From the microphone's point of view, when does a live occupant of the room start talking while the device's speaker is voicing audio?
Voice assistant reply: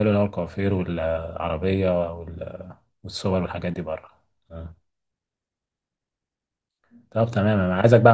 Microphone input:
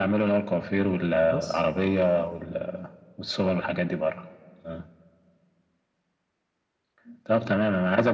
1.3 s

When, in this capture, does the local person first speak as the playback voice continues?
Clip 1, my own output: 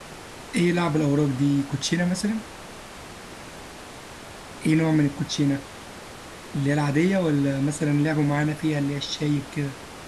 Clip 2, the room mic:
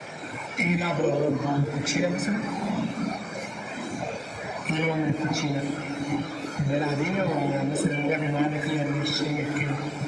none

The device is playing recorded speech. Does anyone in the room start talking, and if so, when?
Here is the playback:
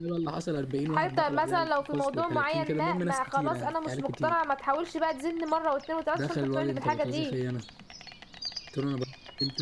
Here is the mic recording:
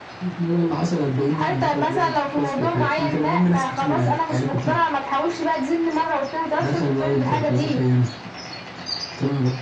none

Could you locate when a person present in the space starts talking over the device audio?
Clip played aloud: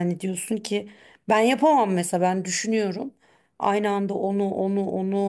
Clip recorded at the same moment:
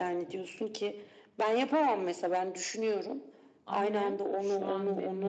3.7 s

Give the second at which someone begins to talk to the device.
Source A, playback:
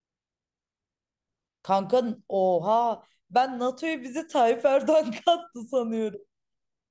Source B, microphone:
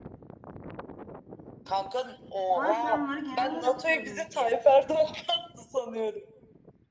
2.5 s

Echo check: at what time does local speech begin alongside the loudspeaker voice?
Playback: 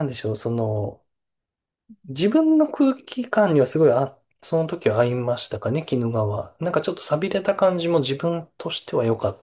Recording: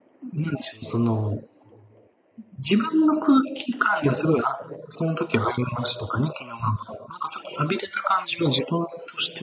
none

